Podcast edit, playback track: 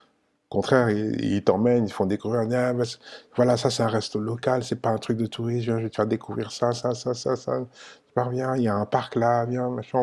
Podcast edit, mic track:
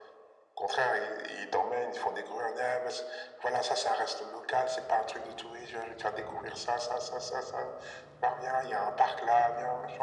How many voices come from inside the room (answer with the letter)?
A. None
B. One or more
A